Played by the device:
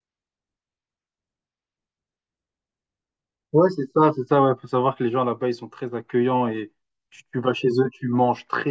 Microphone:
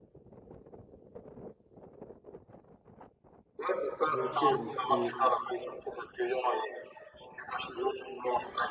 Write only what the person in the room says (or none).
Ok, donc c'est c'est- c'est-